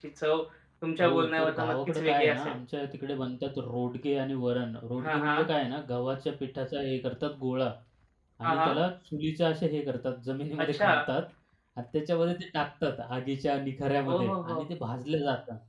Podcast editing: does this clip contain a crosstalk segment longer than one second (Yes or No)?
Yes